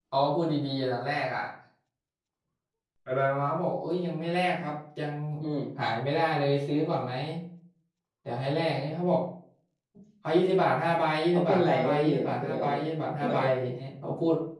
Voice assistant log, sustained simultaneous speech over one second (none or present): present